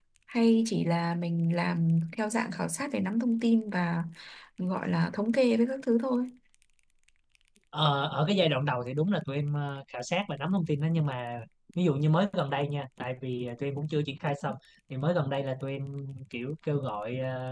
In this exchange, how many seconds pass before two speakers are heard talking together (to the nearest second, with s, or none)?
none